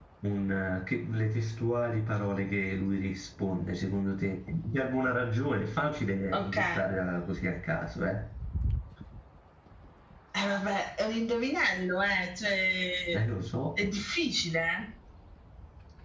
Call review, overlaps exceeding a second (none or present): none